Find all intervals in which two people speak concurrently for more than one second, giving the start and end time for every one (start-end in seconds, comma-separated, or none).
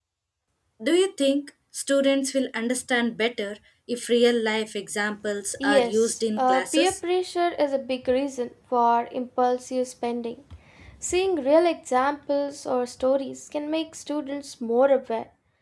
5.7-7.0